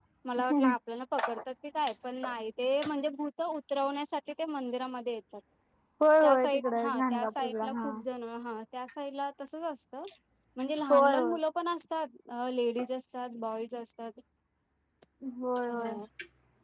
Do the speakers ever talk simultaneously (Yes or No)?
Yes